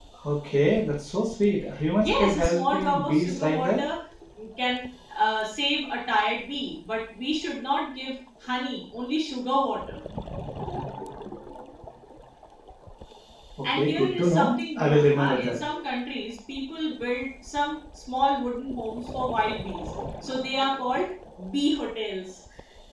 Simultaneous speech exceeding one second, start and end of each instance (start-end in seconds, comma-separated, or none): 2.0-3.8, 13.7-15.6